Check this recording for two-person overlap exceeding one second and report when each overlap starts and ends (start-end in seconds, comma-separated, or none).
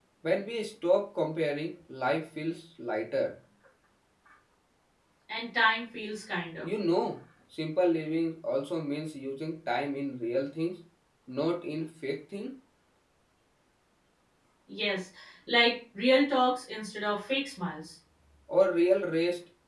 none